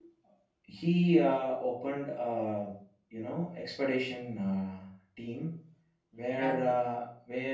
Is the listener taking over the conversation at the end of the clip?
No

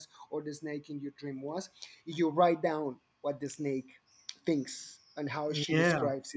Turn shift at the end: No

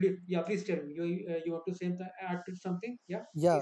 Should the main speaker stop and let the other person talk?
Yes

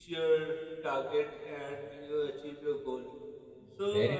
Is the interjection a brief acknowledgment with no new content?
No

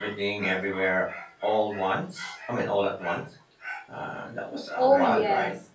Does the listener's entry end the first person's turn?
Yes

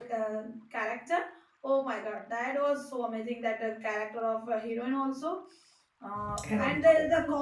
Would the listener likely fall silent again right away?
Yes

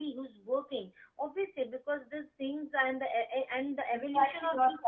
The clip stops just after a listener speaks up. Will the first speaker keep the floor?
No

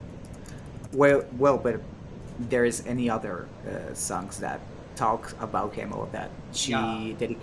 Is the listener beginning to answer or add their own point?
Yes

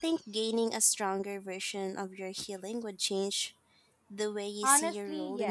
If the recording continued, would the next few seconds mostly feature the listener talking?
Yes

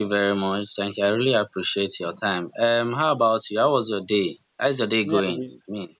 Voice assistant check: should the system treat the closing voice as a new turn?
Yes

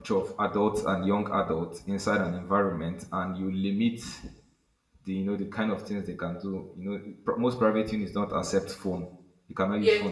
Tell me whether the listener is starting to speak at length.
No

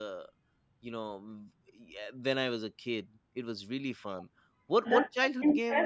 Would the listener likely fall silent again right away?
No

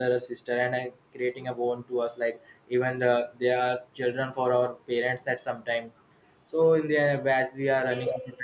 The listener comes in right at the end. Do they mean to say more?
Yes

